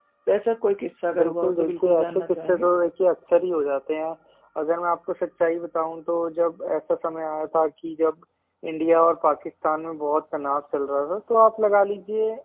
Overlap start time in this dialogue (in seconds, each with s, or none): 1.1 s